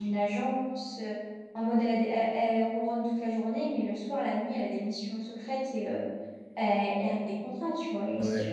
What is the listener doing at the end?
taking over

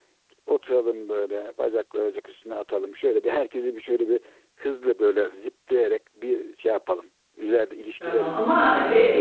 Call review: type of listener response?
taking over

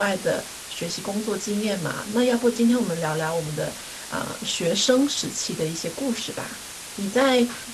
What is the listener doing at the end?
listening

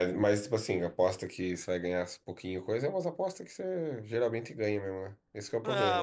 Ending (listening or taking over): taking over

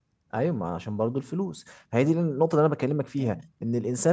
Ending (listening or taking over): listening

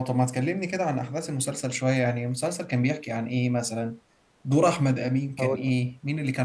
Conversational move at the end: listening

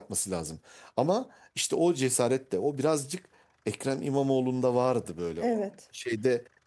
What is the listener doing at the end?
listening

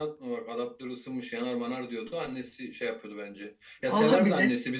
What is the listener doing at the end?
listening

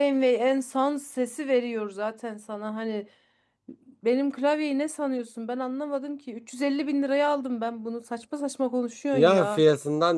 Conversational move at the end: taking over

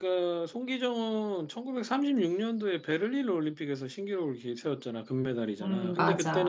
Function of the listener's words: listening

